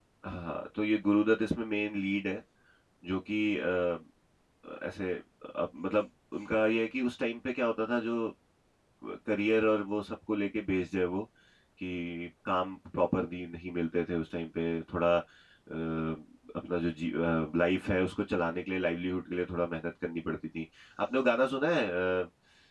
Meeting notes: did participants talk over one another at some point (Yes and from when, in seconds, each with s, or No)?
No